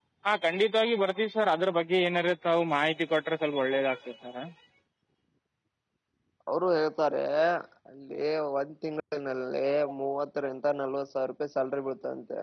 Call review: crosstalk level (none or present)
none